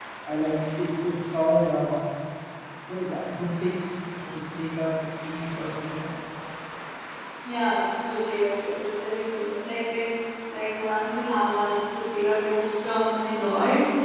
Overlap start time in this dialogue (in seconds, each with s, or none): none